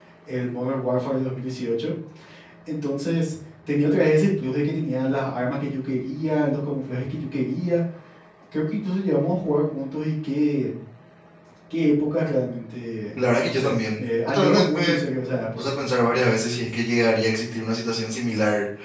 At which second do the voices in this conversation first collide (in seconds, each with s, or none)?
13.2 s